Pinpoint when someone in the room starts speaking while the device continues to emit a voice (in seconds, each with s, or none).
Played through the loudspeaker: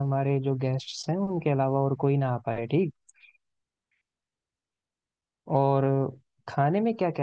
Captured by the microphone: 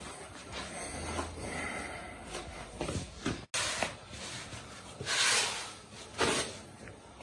none